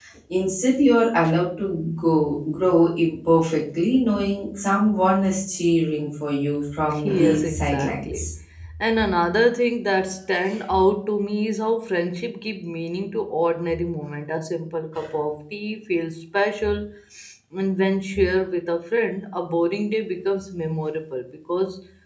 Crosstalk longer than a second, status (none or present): present